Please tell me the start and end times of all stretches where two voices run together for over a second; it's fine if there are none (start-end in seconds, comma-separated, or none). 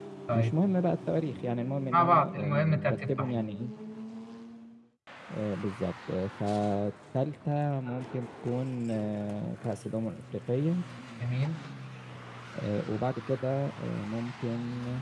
1.9-3.4